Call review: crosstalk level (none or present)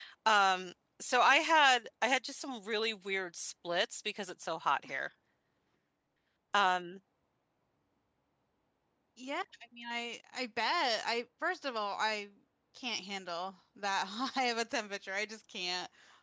none